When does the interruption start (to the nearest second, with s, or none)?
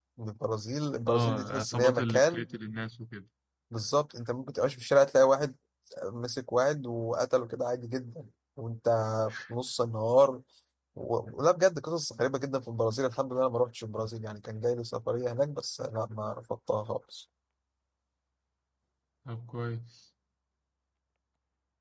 1 s